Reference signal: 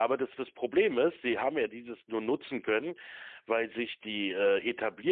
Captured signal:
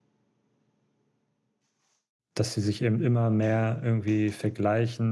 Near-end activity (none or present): present